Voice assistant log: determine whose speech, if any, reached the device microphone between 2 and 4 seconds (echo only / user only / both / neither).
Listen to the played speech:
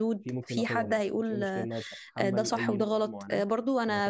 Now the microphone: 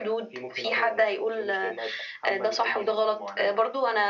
echo only